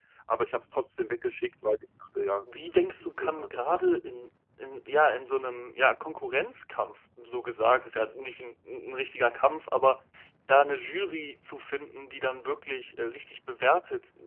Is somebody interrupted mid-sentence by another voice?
Yes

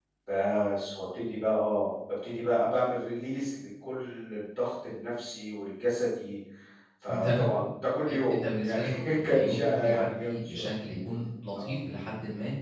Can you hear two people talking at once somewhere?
Yes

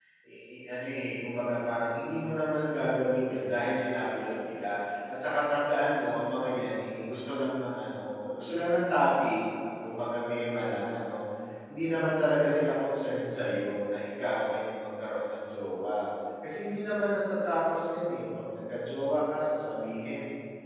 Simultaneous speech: No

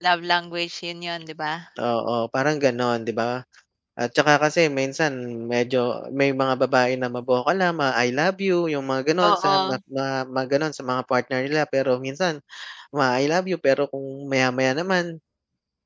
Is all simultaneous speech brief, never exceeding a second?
Yes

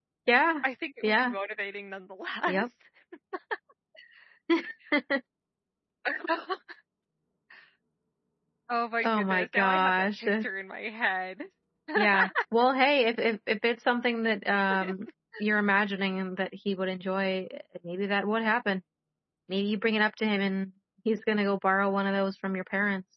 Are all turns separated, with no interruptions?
No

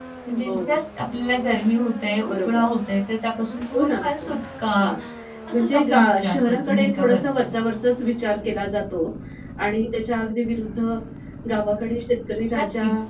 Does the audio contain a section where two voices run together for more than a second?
Yes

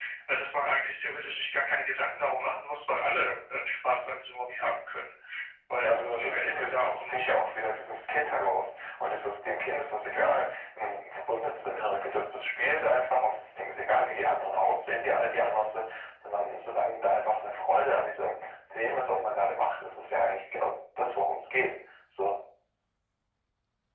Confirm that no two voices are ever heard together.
No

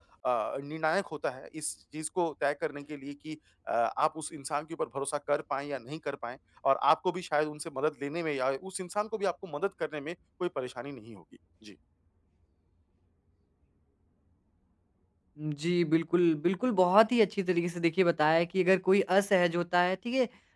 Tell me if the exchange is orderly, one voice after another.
Yes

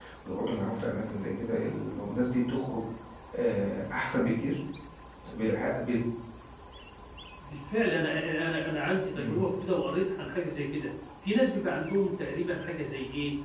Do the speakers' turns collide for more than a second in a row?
No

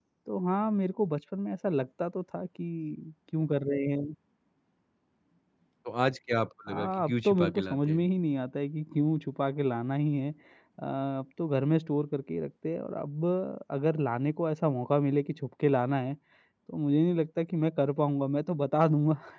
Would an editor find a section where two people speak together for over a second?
Yes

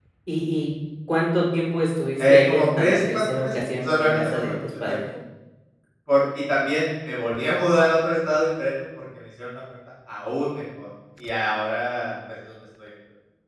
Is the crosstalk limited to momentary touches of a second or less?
No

